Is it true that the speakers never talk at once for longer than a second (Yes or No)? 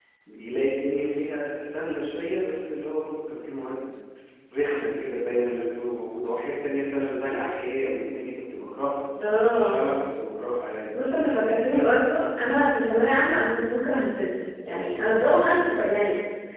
Yes